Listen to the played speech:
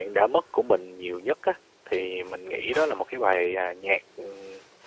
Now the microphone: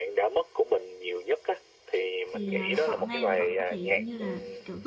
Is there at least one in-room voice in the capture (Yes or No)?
Yes